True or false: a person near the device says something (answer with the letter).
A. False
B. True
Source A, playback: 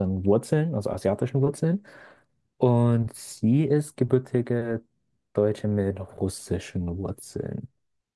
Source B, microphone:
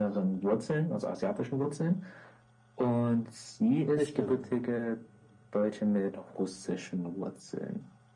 B